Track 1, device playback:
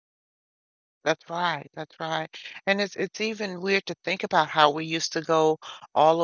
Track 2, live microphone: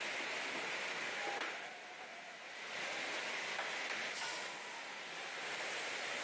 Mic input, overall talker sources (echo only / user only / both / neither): neither